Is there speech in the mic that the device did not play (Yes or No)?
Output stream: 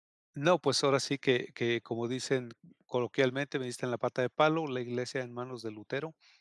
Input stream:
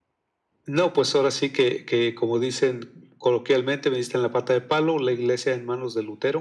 No